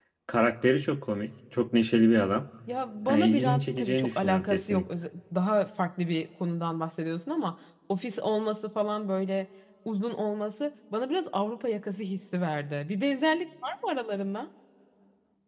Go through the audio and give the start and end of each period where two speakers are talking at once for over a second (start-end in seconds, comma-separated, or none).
3.1-4.8